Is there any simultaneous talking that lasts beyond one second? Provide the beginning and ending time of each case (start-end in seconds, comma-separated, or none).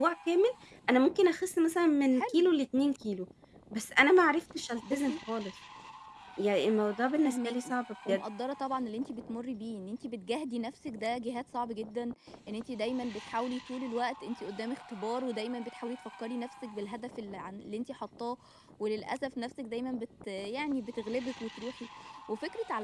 none